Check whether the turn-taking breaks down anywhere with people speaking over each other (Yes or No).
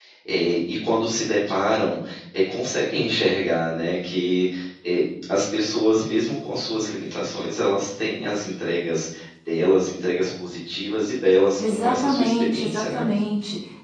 Yes